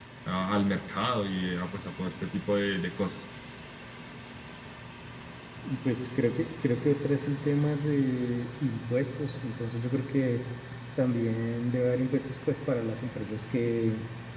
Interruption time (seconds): none

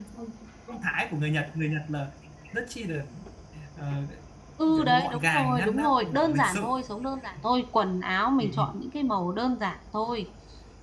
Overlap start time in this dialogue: 4.8 s

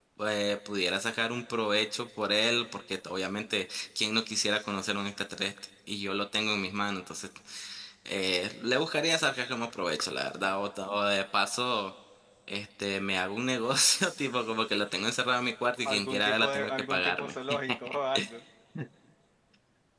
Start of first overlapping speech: 15.8 s

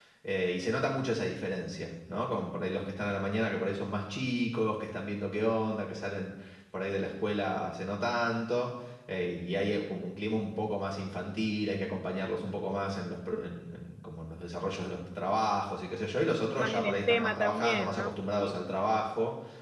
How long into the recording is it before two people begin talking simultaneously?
16.6 s

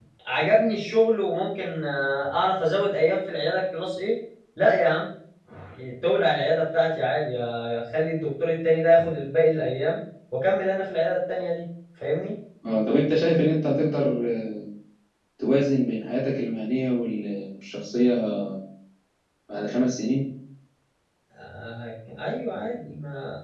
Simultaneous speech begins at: none

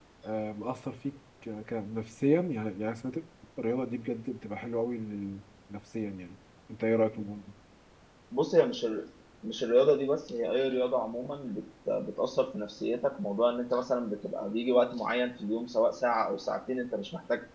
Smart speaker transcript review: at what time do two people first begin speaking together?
none

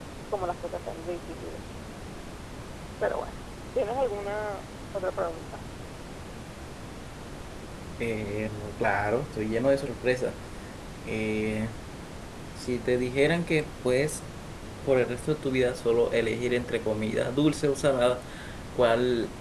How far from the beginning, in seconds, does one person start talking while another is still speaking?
none

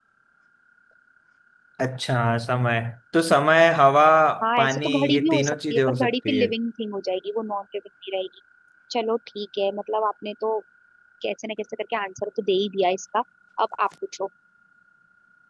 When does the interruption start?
4.6 s

